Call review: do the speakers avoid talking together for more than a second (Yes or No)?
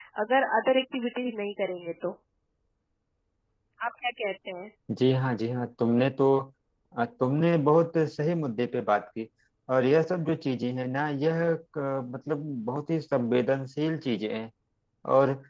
Yes